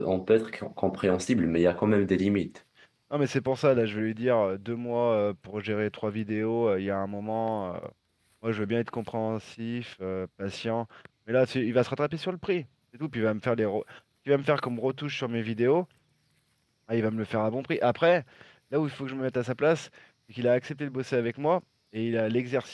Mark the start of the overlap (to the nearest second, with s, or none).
none